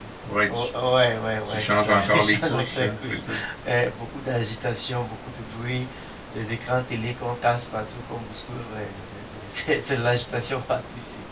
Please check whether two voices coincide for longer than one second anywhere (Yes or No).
Yes